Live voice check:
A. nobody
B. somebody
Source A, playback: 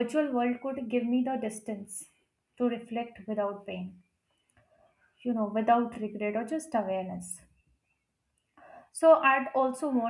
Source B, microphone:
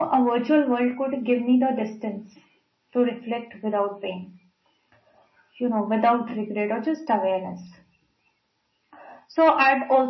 A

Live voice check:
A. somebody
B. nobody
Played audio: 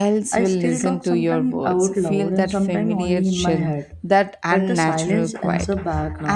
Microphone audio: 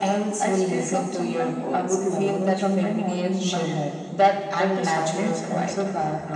B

